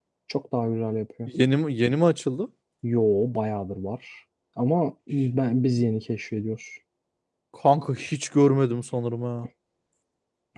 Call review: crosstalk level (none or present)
none